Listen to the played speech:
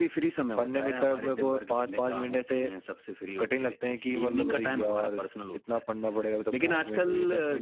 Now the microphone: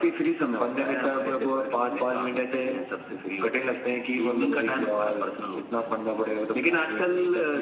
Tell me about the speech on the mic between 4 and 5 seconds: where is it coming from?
echo only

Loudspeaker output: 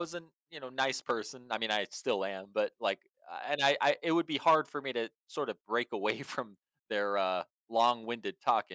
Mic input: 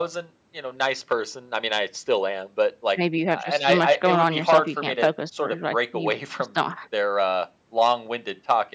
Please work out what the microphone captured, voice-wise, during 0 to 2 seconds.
echo only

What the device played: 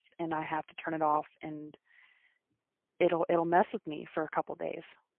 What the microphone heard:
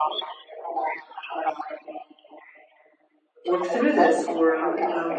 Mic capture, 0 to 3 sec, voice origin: echo only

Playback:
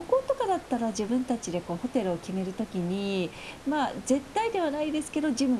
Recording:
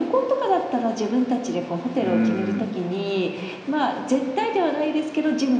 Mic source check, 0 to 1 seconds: echo only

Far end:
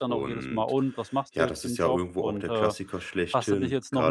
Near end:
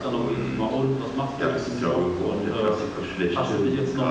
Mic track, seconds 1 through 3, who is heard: echo only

